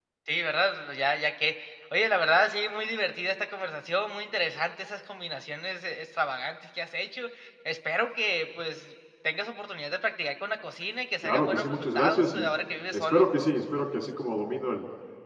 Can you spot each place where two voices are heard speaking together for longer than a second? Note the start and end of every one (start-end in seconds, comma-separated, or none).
11.2-12.5